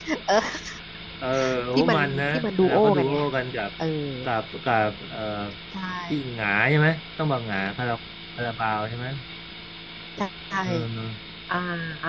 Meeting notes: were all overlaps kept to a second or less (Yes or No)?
No